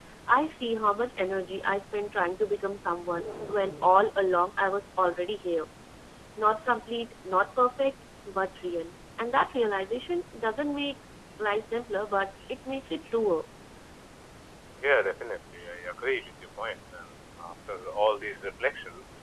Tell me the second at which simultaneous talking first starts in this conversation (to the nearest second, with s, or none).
none